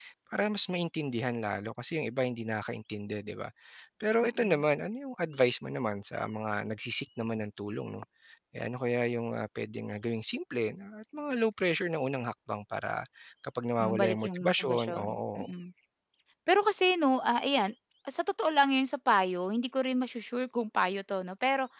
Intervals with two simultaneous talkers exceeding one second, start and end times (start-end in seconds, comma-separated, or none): 13.8-15.5